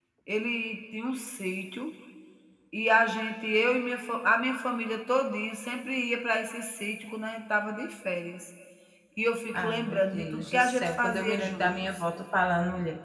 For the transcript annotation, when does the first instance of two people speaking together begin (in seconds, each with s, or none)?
9.5 s